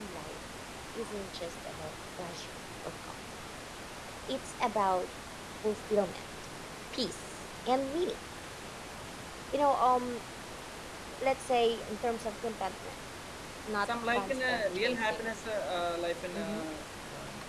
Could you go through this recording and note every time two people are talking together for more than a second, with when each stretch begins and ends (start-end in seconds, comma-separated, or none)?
13.8-15.3